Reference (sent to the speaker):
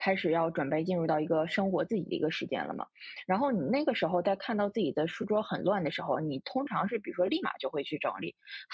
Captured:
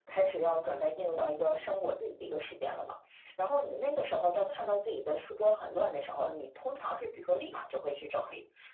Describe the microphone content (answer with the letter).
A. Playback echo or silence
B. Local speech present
A